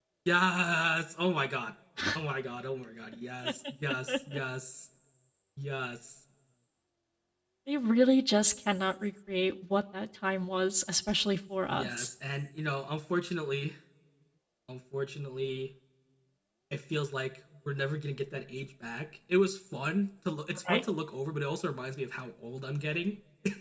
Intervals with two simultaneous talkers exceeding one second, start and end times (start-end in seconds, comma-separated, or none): none